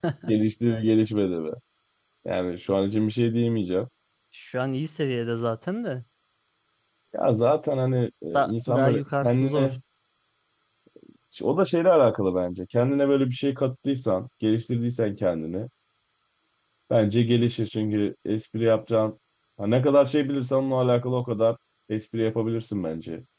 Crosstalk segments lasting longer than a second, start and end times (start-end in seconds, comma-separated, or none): 8.3-9.7